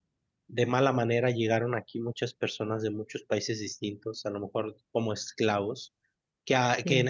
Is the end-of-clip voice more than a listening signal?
No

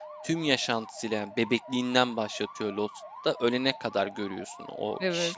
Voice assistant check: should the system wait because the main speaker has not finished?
Yes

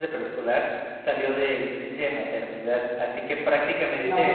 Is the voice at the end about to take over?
No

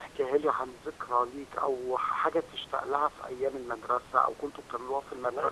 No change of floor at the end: No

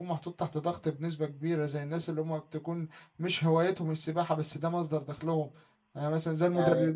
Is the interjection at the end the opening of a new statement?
No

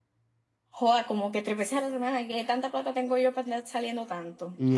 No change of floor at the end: No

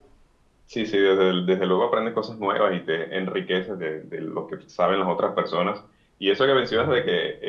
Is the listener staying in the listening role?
Yes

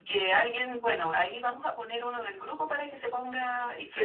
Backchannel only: Yes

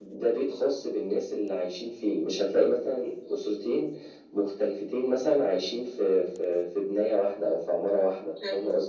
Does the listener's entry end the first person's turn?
Yes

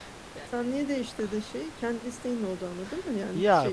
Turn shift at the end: Yes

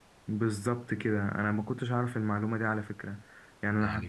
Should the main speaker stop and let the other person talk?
Yes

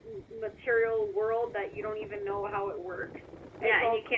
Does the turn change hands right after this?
Yes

